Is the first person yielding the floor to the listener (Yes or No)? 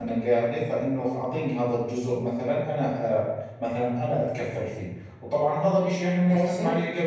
No